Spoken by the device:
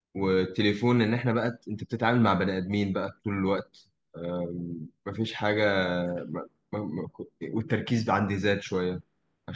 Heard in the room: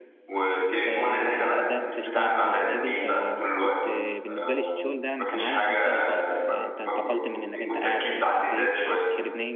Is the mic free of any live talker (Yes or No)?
No